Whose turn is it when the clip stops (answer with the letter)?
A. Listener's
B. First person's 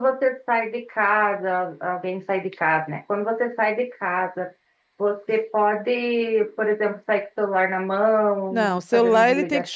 A